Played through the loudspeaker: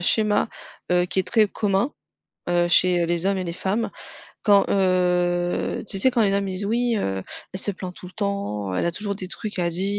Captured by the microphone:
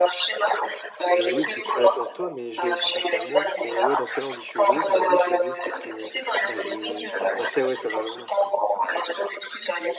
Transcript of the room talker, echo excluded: C'est oui, tu je suis là pour toi, mais je dois aussi penser à moi et ouais, dans ce cas-là, on dit: «Je suis égoïste», mais oui, je suis égoïste parce que, bah, j'ai bah, tu sais, ouais, ça va loin, c'est

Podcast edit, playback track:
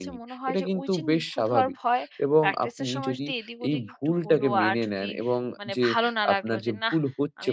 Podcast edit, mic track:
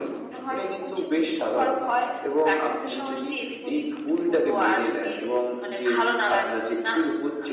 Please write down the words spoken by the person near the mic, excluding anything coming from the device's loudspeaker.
none

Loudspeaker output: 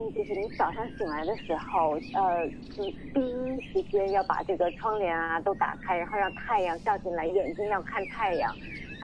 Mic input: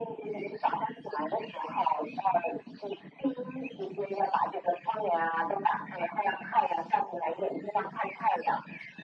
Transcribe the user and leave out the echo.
none

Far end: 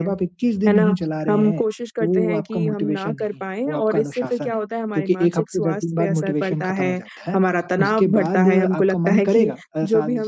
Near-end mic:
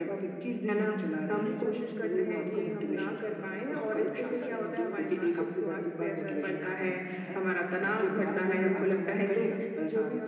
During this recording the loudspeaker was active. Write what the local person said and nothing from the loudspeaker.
तो ये सारी चीज़ें हैं मुझे लगता है कि समझना पड़ता है कि सोशल मीडिया

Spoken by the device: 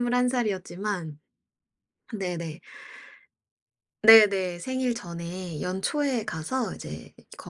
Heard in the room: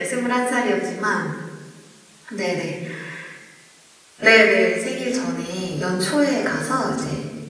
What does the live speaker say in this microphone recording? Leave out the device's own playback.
none

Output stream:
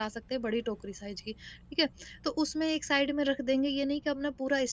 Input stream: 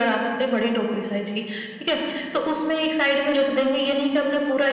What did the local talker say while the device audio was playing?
none

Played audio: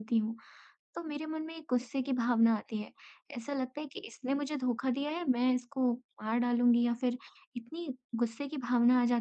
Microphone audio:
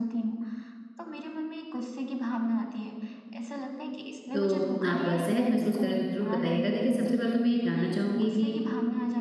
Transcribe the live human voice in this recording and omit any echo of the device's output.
तो आप अ, सहज महसूस करें तो ज़रूर बताइएगा। देखिए सबसे पहले तो मैं ये जानना चाहूँगी कि

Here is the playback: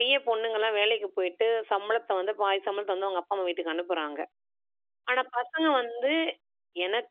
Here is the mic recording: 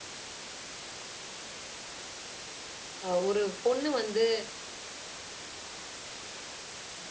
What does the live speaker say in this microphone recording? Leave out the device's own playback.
அ ஒரு பொண்ணு வந்து

